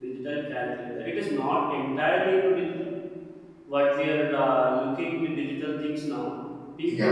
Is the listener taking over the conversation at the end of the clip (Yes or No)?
No